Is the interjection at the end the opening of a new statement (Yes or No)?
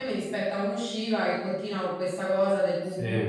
No